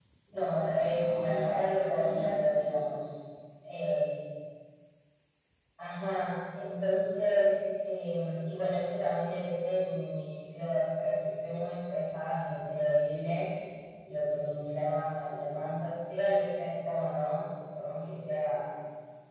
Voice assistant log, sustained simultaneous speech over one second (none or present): present